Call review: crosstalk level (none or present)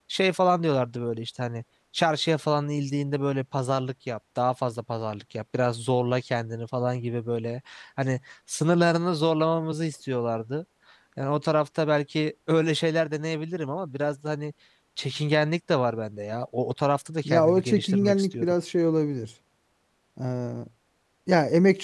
present